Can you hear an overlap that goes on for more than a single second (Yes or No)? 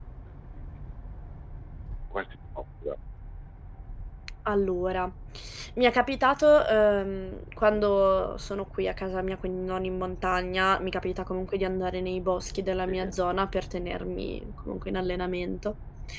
No